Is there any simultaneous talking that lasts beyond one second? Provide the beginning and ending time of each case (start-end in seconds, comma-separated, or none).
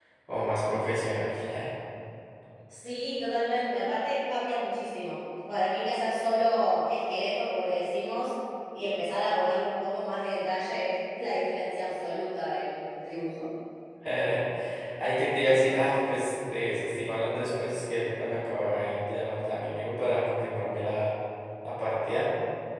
none